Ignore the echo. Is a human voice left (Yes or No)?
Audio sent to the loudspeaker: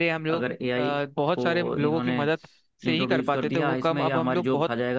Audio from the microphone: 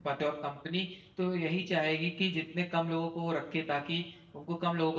Yes